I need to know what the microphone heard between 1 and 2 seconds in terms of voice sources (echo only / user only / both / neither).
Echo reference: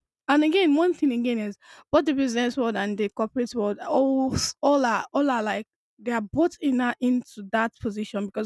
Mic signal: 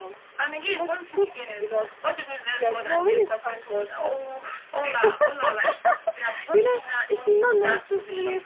both